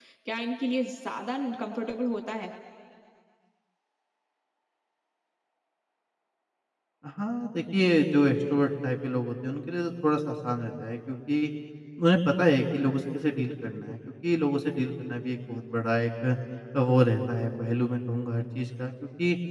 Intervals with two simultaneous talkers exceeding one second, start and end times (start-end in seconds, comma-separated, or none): none